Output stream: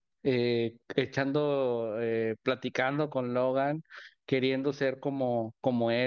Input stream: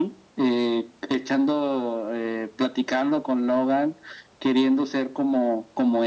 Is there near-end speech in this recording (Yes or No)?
No